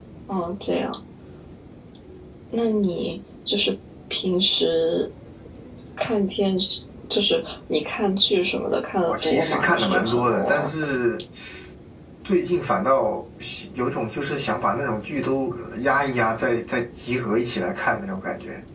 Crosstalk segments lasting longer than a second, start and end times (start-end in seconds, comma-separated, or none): 9.1-10.7